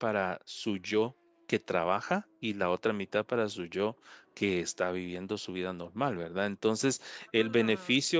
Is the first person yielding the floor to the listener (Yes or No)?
No